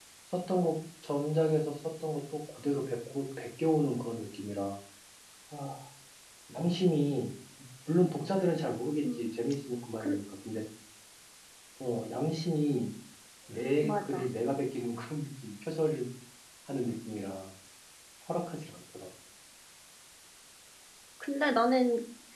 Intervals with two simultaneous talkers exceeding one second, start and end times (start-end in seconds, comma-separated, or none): none